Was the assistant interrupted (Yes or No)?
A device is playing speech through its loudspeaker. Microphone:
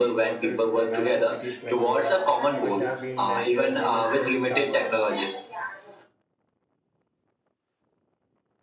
Yes